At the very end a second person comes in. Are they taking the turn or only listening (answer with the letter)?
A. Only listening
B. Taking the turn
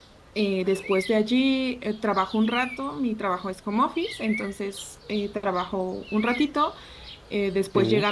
A